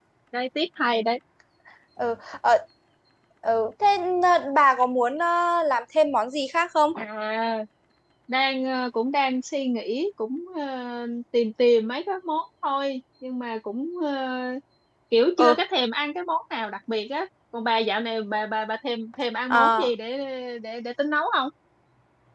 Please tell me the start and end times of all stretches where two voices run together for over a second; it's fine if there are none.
none

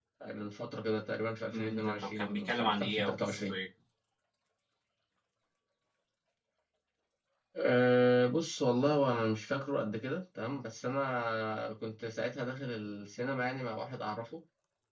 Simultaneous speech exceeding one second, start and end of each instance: 1.5-3.5

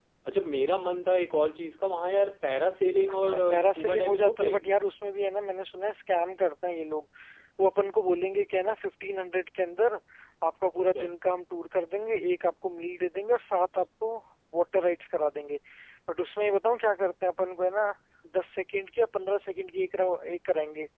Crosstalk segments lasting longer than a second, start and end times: 3.1-4.8

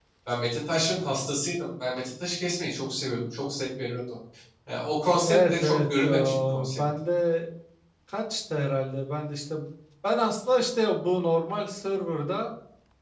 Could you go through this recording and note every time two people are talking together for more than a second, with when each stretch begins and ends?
5.2-6.8

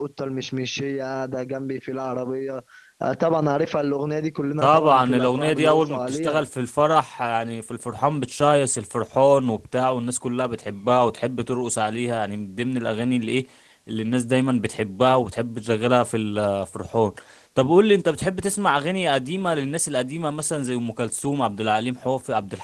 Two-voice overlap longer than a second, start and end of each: 4.6-6.3

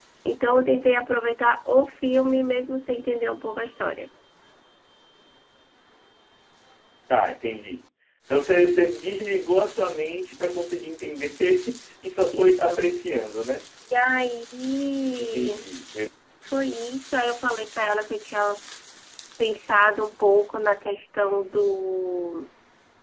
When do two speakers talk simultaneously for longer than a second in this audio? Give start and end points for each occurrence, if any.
none

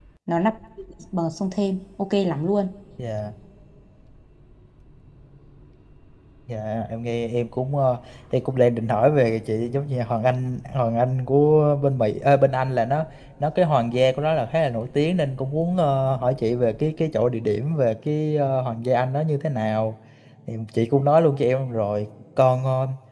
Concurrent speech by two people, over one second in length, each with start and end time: none

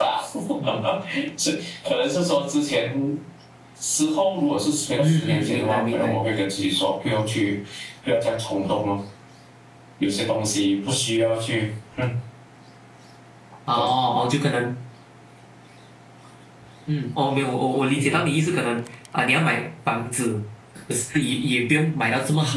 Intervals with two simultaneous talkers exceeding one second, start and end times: 5.0-6.2

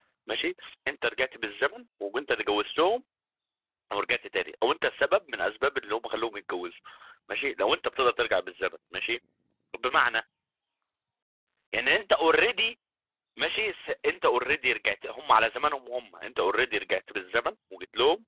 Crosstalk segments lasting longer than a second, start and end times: none

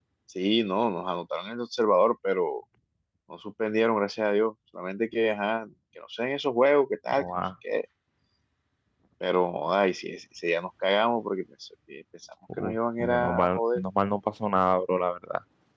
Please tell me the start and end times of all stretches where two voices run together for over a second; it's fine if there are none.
12.6-13.8

